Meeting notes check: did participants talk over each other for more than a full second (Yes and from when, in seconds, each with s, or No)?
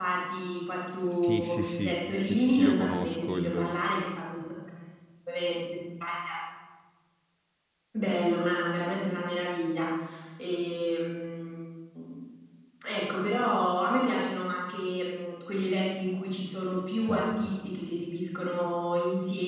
Yes, from 1.1 s